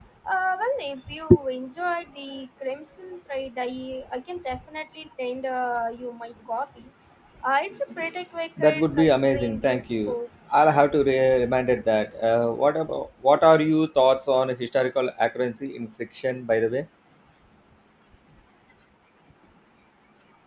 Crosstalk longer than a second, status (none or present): present